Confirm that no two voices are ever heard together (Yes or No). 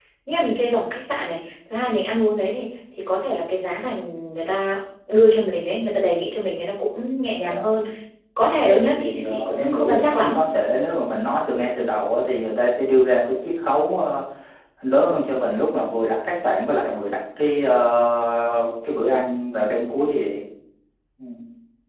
No